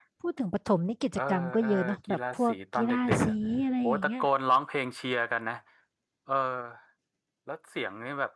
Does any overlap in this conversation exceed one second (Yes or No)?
Yes